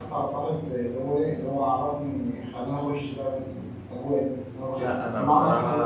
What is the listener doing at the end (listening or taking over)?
taking over